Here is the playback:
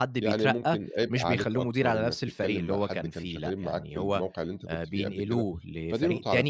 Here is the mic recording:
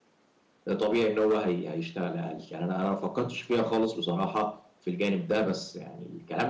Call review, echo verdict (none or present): none